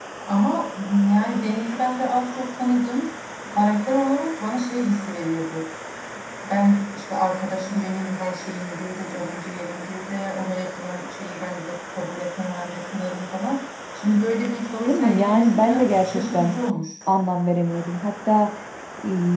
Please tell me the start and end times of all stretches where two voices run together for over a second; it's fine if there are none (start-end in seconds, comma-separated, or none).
14.9-16.5